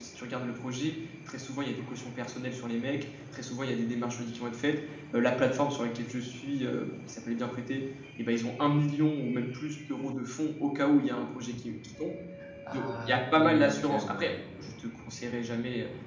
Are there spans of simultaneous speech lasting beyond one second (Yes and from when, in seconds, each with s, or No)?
Yes, from 12.7 s